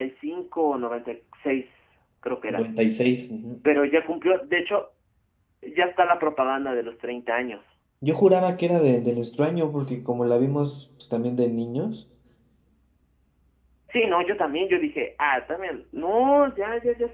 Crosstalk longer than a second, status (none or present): none